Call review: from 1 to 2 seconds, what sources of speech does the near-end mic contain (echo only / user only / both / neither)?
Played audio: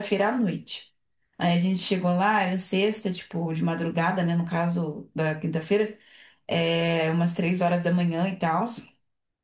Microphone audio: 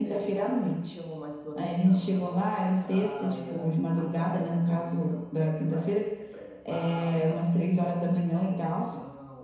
both